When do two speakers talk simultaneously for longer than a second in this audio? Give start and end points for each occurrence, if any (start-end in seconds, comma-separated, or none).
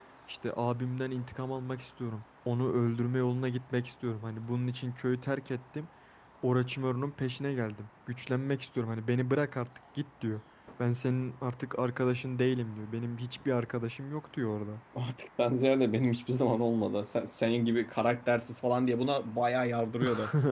none